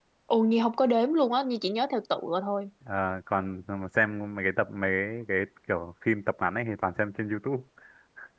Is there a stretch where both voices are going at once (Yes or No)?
No